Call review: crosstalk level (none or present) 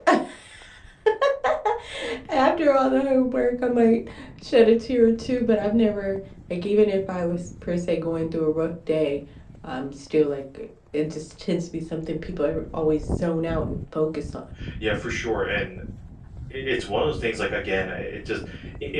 none